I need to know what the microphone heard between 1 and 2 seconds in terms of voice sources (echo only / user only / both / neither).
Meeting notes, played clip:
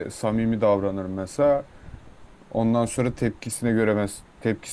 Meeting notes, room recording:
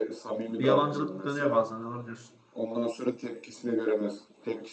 both